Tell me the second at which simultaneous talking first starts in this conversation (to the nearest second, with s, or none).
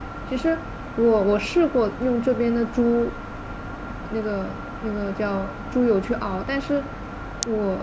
none